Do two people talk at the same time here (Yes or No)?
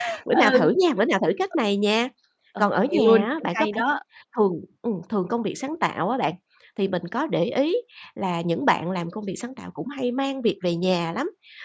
Yes